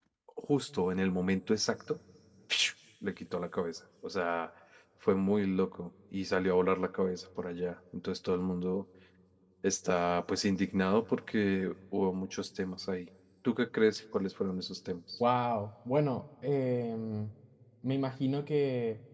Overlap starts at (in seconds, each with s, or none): none